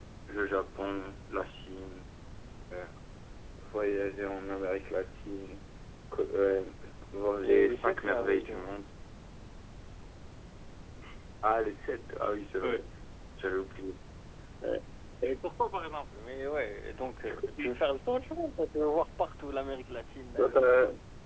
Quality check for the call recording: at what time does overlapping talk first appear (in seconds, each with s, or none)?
7.4 s